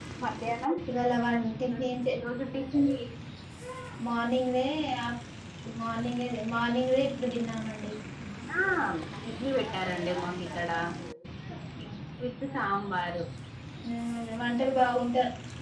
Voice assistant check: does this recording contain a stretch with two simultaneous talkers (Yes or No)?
No